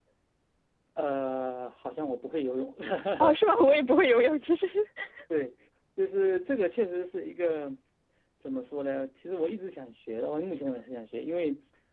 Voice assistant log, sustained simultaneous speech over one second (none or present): none